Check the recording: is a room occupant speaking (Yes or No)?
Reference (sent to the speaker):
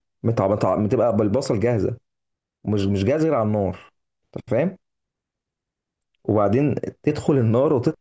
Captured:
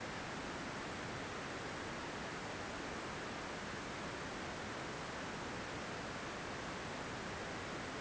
No